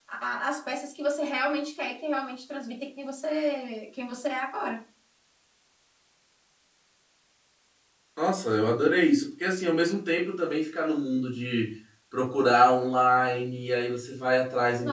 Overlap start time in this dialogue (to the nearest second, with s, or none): none